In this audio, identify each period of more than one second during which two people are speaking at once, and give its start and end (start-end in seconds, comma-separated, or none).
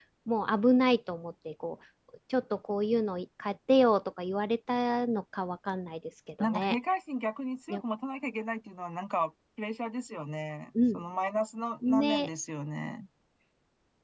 none